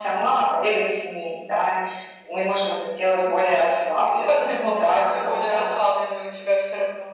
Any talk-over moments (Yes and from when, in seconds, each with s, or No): Yes, from 4.0 s